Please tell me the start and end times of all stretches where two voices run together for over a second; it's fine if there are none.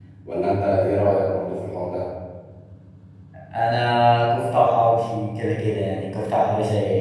none

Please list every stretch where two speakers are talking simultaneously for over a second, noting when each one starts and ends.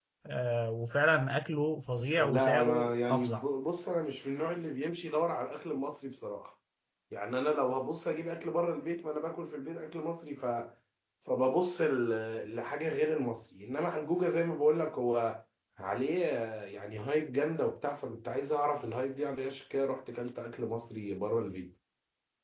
2.2-3.5

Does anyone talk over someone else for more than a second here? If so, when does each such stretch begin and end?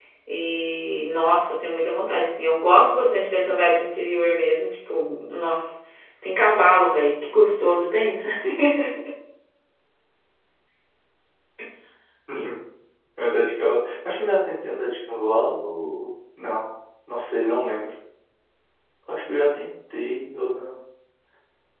none

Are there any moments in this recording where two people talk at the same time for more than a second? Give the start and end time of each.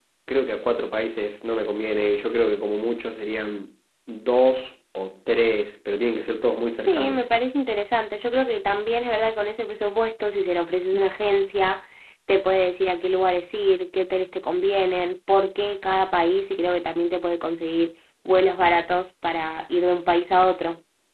none

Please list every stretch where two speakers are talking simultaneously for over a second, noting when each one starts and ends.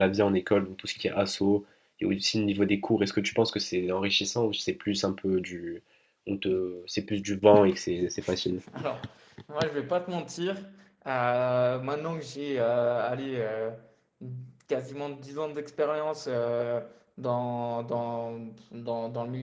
none

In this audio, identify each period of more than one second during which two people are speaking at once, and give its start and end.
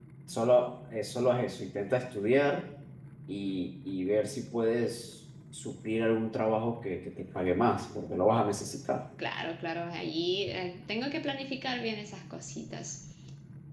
none

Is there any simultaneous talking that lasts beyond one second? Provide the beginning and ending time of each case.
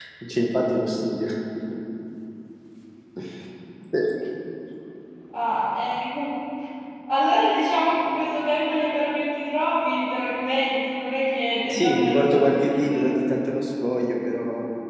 11.7-13.1

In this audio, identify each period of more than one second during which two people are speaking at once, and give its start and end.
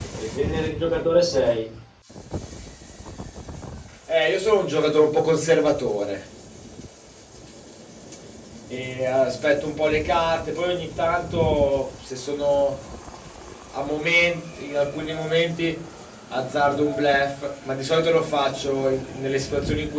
none

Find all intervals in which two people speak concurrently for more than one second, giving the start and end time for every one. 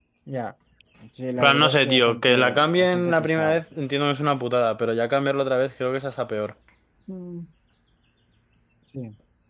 1.4-3.6

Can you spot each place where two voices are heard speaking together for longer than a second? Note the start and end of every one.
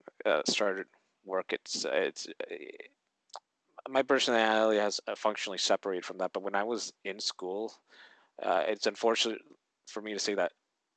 none

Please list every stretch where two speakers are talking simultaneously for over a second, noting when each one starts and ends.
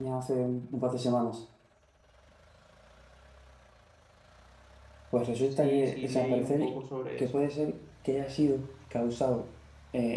5.4-6.7

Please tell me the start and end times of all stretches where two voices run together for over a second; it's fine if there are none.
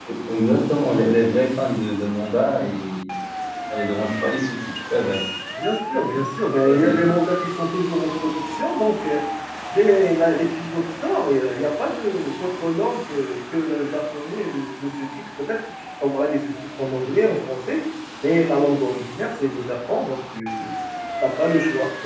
none

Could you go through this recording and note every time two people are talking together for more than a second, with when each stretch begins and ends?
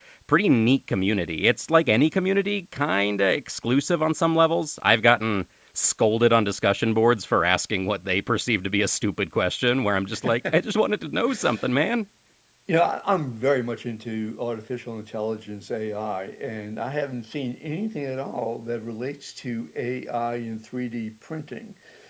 none

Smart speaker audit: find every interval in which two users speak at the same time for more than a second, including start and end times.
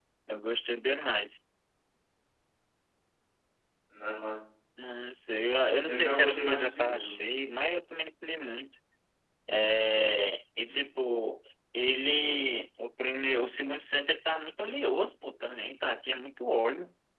5.8-7.2

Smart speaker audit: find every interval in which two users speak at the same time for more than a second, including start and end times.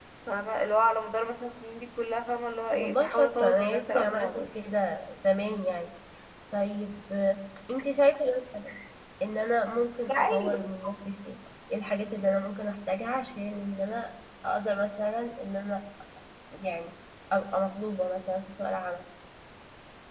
2.7-4.5

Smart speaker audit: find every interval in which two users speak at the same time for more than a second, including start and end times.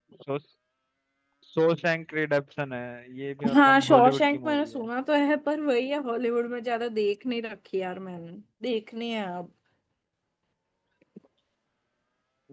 3.5-4.8

